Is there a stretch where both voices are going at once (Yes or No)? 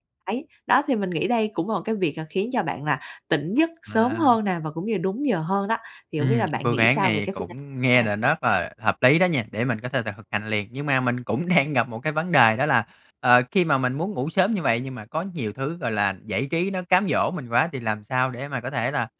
Yes